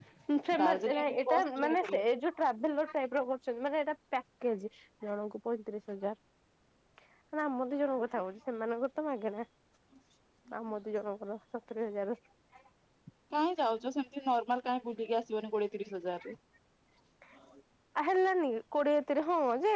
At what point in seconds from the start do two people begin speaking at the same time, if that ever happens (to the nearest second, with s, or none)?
1 s